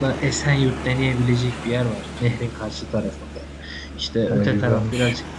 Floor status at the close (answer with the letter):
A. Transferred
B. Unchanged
B